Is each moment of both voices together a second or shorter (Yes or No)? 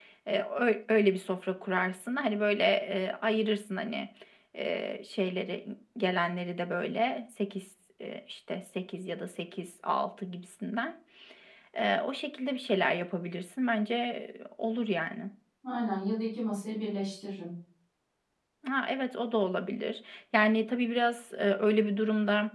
Yes